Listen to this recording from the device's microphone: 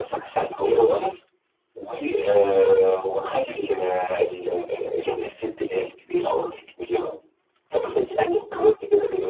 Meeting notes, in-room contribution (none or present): none